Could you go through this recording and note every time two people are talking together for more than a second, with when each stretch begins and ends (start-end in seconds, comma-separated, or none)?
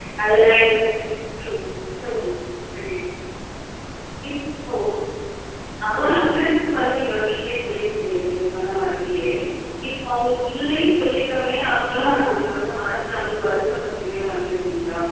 none